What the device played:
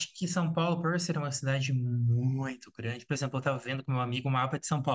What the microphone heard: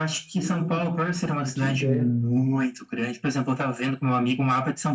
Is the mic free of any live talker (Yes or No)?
No